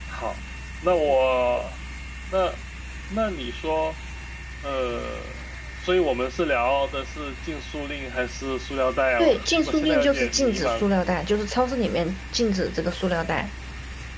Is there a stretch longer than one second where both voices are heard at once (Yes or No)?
Yes